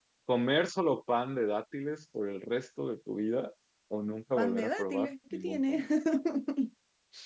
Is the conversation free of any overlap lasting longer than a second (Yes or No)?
No